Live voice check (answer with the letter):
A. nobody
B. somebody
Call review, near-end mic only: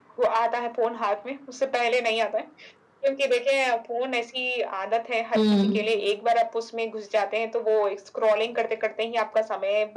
B